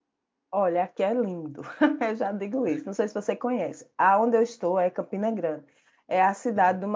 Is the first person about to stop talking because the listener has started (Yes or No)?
No